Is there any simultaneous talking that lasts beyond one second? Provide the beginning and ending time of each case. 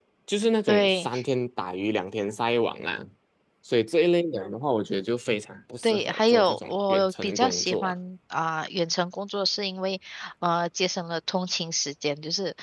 5.8-7.9

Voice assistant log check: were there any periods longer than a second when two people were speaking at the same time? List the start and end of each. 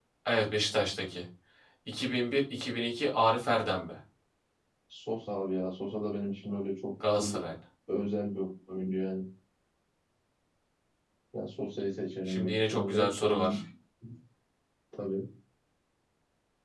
12.3-13.6

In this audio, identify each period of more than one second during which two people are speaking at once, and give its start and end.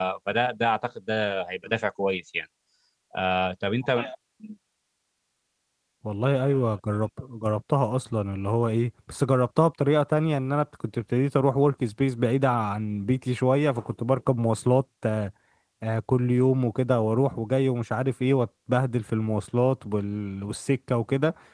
none

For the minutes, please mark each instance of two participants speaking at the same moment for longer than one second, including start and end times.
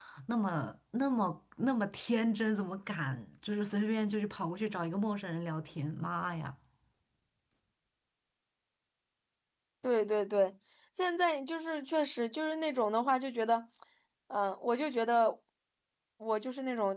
none

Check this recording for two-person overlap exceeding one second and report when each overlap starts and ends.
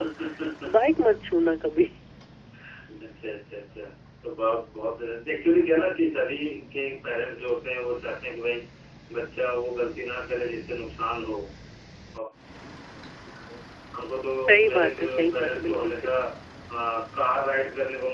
14.5-16.1

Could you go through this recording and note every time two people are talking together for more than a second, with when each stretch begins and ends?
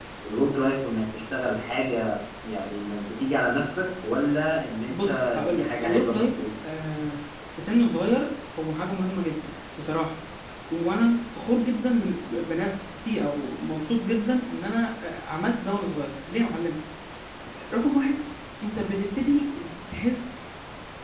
4.9-6.4

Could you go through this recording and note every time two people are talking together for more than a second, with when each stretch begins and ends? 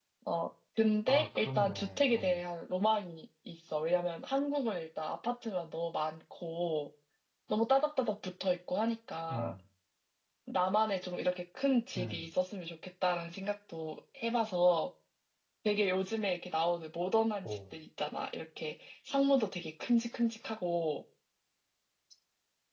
1.1-2.4

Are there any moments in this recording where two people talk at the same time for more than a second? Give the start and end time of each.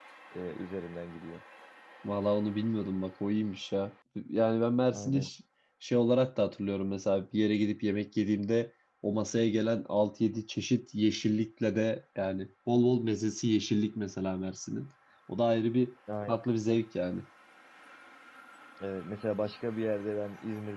none

